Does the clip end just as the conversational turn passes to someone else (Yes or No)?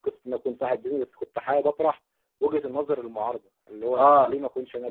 No